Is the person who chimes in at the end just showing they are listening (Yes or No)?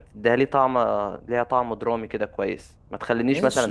No